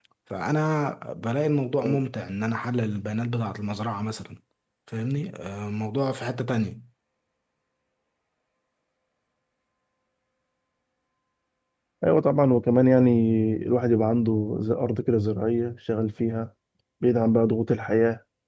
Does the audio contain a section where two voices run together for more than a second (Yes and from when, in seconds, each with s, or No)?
No